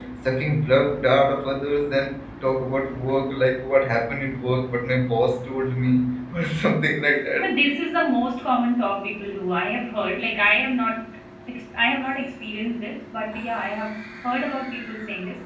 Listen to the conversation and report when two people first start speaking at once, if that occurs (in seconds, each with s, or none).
none